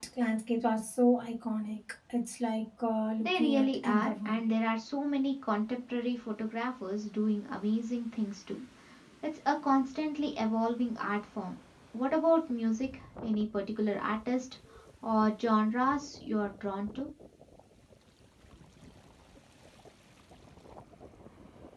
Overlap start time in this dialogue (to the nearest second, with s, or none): 3 s